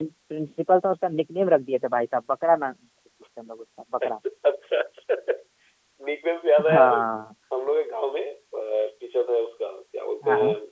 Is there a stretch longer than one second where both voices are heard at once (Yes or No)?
No